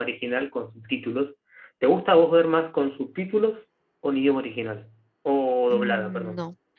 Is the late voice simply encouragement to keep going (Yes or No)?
No